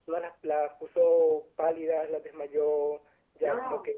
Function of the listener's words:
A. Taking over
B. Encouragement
B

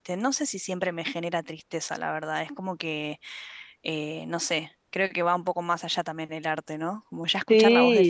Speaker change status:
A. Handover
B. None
B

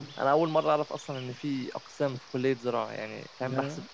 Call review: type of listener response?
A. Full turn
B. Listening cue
B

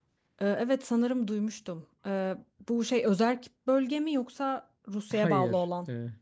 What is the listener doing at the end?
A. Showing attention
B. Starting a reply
B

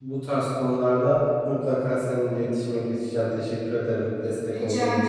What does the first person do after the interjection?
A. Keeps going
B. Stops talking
B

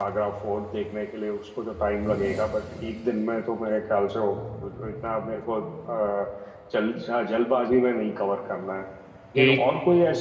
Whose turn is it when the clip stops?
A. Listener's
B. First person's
B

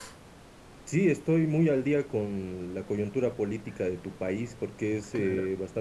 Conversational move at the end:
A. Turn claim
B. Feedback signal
B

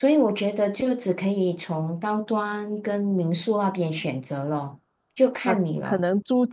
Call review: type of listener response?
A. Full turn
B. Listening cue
A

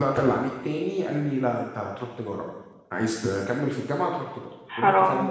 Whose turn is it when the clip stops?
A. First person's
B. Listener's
A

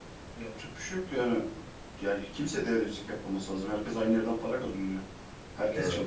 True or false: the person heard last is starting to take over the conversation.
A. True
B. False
B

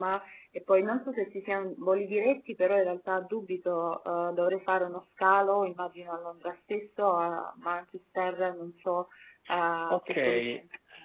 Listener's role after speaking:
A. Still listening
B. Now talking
B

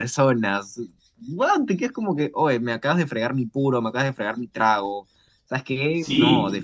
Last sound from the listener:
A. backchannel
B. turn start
B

